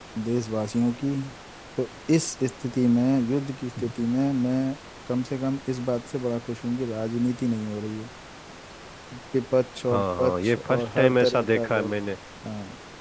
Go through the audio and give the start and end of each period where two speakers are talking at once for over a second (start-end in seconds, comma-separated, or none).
9.9-11.9